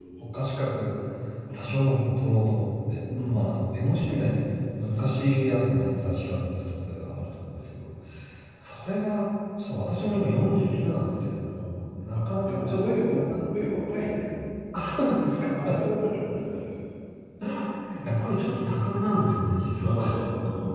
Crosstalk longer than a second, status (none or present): present